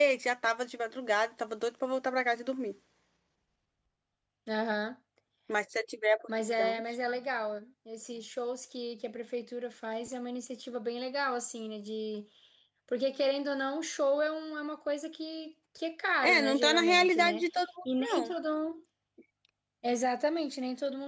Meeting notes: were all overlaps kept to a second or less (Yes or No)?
No